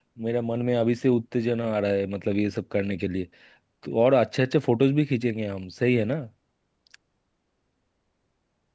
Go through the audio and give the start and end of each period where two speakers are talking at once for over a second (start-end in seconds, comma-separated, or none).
none